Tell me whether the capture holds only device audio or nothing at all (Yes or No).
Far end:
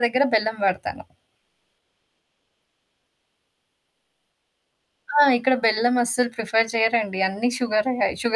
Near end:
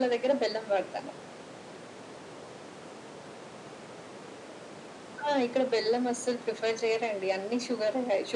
Yes